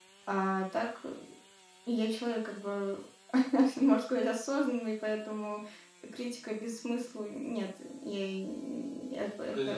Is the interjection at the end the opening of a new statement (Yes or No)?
Yes